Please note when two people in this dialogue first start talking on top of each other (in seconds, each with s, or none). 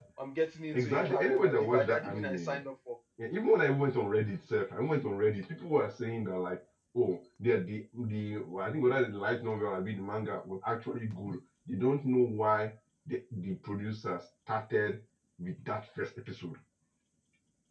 0.7 s